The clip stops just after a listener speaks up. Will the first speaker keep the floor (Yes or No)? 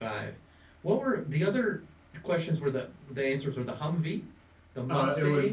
No